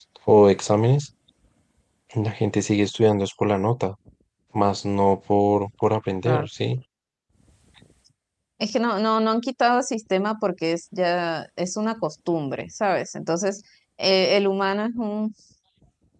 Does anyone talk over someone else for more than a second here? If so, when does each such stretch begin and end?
none

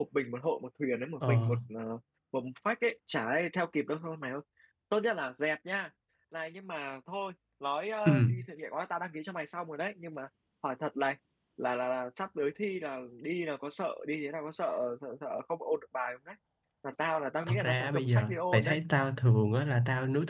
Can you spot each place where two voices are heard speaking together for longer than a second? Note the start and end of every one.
17.5-18.8

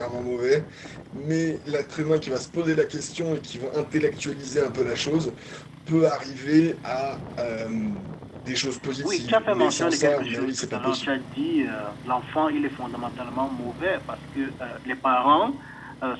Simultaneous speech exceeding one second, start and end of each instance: 9.0-11.1

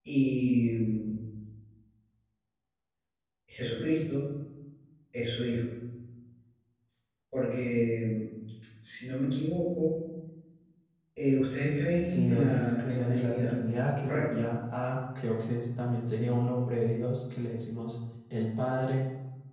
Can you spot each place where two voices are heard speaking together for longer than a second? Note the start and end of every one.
12.0-13.6

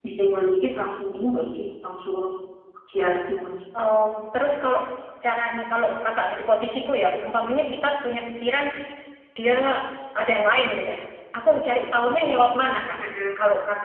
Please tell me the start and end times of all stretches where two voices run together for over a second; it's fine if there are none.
none

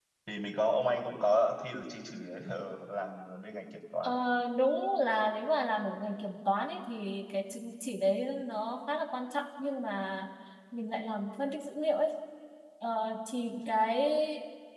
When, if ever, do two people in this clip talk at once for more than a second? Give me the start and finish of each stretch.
none

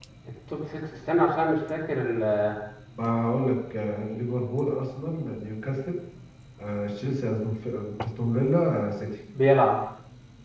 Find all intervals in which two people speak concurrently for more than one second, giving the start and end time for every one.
none

